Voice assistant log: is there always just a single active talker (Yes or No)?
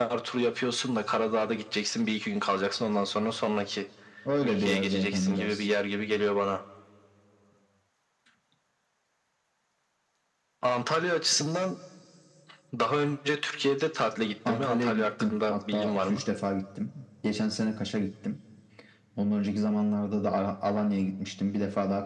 No